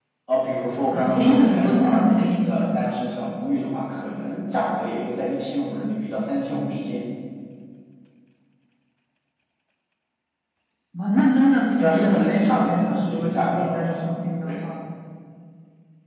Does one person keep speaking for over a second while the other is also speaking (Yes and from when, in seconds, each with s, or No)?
Yes, from 0.9 s